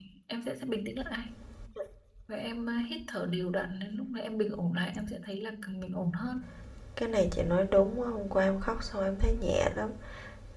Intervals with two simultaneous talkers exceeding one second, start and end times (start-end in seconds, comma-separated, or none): none